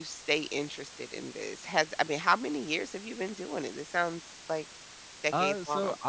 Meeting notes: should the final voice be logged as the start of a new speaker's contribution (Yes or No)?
Yes